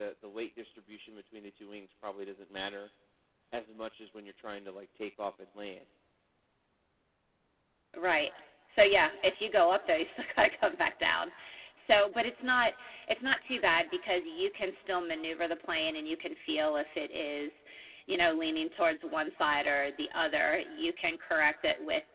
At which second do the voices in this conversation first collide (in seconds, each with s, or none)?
none